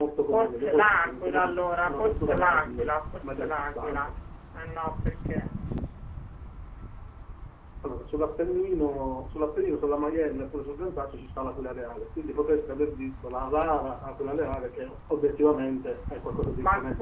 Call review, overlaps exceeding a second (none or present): present